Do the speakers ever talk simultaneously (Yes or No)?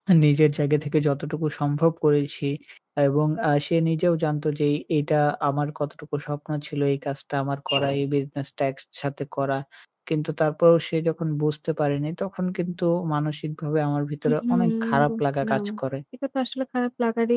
Yes